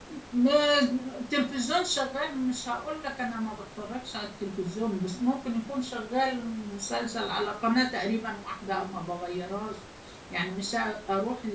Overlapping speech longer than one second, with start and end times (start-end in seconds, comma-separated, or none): none